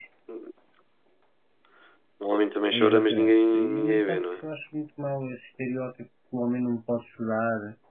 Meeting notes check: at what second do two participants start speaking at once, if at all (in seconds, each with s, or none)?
2.7 s